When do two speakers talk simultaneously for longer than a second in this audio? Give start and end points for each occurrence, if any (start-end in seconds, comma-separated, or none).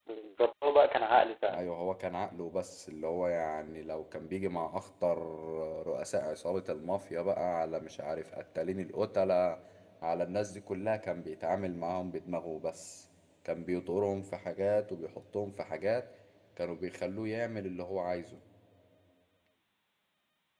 none